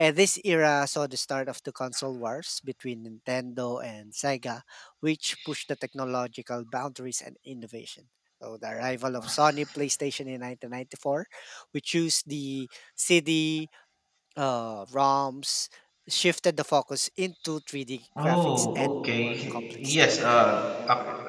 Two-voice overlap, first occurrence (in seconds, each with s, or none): 18.2 s